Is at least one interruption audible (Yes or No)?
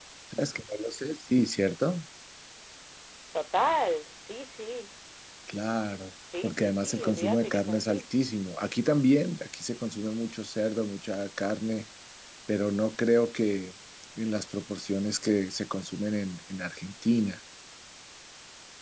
Yes